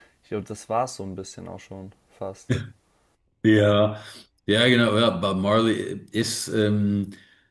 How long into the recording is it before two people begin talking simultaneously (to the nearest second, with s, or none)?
none